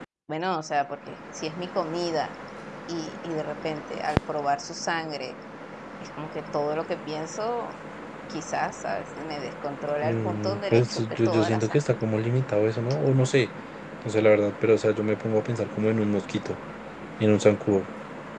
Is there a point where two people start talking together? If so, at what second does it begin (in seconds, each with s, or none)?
10.0 s